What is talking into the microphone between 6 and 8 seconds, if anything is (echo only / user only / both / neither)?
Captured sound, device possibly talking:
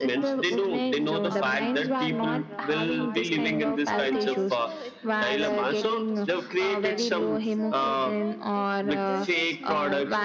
both